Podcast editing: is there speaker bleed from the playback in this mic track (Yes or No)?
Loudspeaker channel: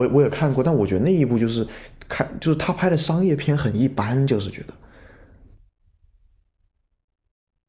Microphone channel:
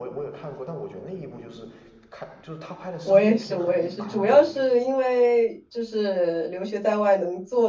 Yes